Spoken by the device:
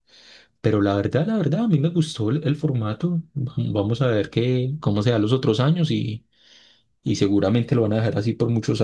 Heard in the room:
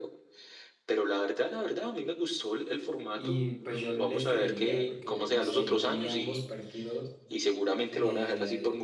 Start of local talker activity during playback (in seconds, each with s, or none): 3.1 s